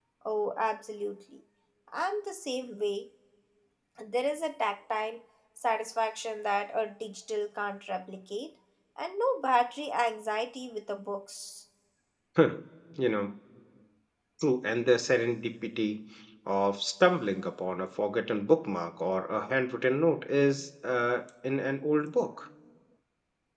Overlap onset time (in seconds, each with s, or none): none